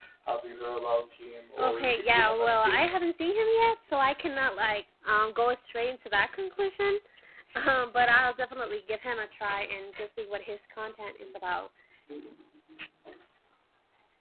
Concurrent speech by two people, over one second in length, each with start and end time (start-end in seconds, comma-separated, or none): 1.6-3.0